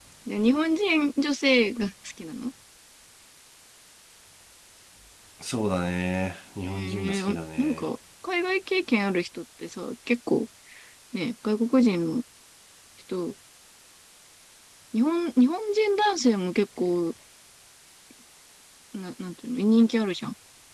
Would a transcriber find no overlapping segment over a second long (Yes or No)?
No